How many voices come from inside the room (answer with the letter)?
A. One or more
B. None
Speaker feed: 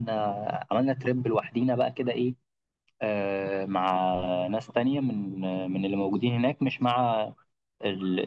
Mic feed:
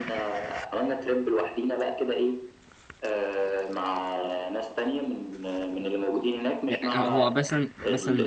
A